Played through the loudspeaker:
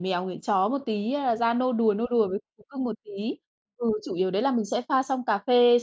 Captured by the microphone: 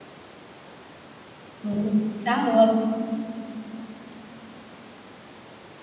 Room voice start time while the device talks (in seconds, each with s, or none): 1.6 s